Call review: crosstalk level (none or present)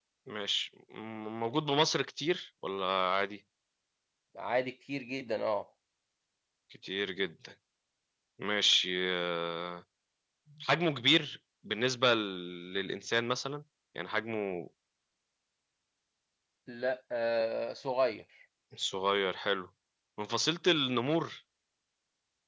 none